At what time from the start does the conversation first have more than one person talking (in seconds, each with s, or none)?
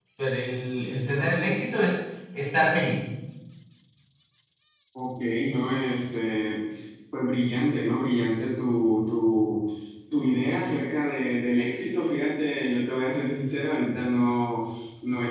none